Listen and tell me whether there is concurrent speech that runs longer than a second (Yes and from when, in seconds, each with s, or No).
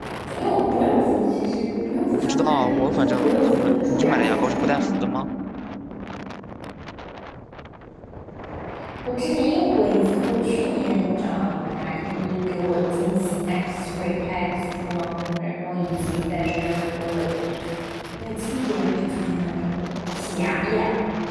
Yes, from 2.1 s